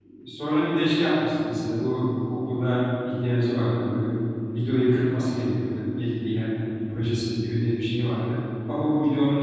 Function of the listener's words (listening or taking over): listening